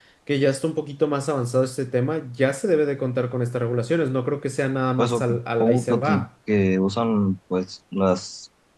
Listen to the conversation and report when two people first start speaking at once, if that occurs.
5 s

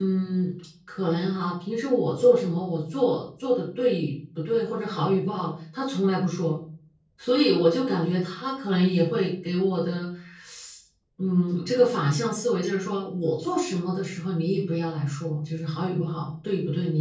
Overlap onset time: none

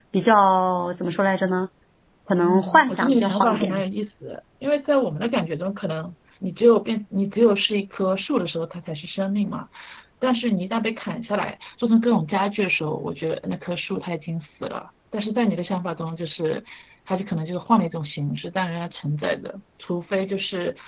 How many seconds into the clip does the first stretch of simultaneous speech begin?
2 s

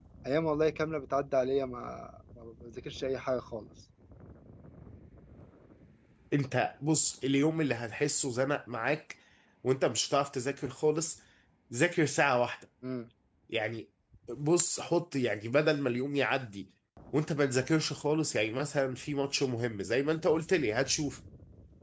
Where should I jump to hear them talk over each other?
none

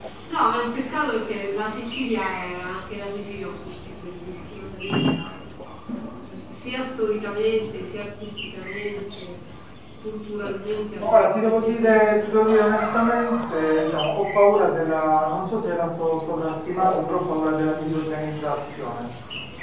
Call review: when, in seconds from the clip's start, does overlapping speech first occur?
11 s

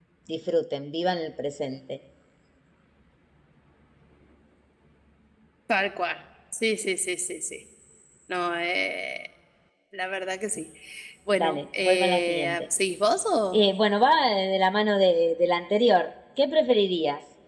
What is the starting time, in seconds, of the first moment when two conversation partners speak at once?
11 s

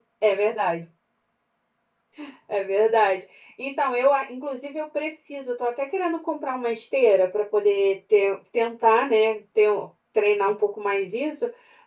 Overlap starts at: none

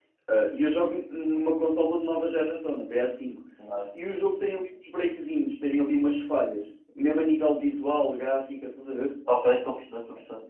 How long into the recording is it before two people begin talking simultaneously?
none

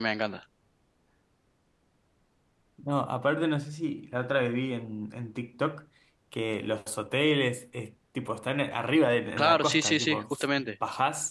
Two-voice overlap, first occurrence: 9 s

